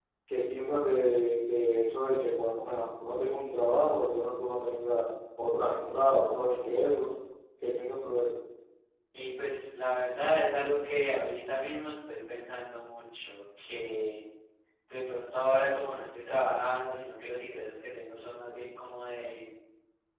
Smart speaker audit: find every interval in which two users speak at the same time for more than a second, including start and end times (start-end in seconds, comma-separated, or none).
none